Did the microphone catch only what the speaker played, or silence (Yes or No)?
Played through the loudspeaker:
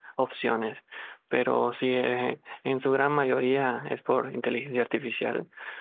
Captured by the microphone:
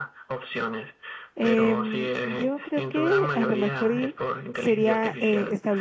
No